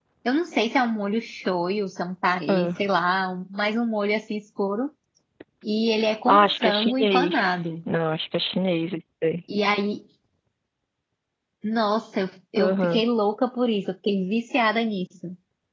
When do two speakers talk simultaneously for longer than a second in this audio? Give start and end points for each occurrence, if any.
6.3-7.5

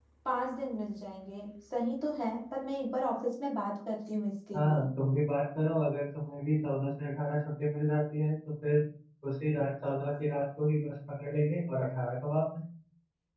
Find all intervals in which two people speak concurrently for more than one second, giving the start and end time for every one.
none

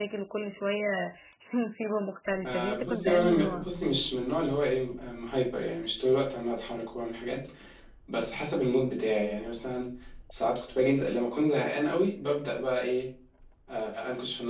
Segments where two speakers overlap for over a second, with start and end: 2.4-3.7

